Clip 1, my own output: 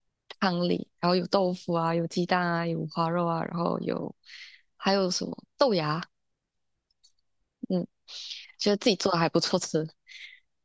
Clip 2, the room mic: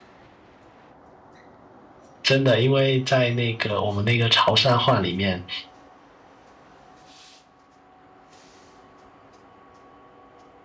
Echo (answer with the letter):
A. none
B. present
A